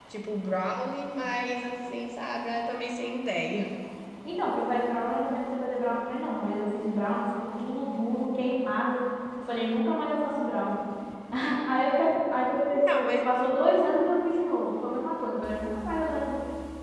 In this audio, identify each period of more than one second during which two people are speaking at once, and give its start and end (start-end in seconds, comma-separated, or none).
none